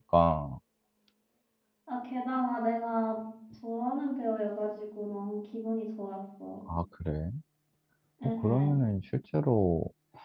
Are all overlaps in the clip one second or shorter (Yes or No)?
Yes